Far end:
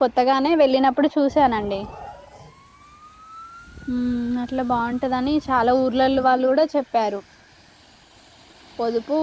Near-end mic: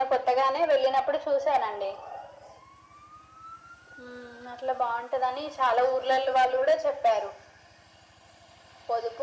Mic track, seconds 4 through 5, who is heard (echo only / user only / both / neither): echo only